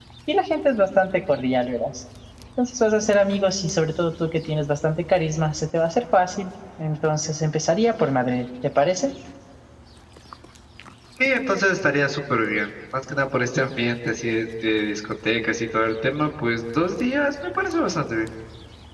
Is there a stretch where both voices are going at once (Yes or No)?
No